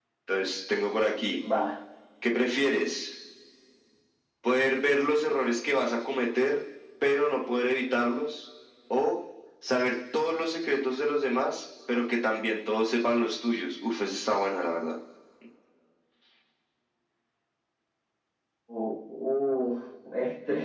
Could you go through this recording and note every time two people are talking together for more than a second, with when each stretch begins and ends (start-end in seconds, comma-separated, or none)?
none